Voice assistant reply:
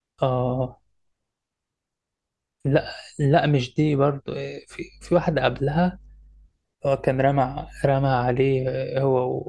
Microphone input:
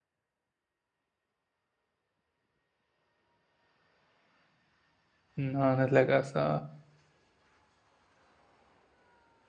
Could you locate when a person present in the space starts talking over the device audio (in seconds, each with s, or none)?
5.4 s